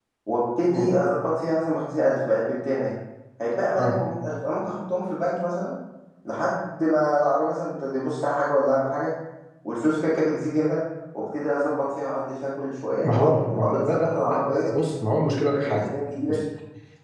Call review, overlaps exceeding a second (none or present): present